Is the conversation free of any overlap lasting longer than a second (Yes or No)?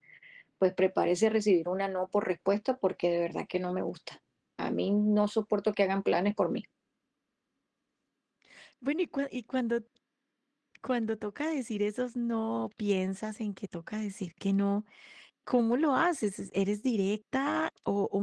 Yes